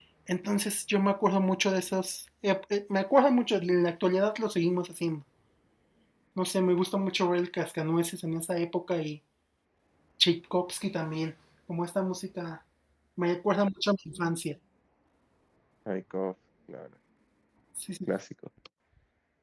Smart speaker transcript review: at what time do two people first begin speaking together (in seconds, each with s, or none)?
none